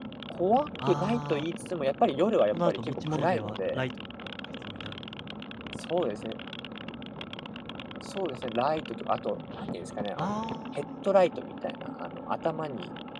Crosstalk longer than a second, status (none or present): present